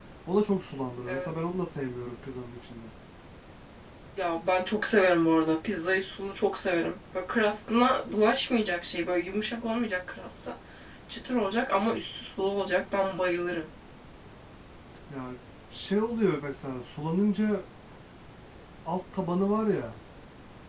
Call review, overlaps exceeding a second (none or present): none